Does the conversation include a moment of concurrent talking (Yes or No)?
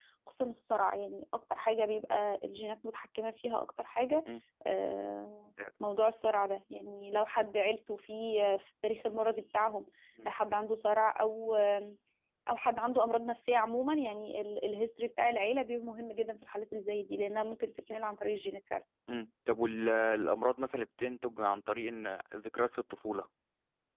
No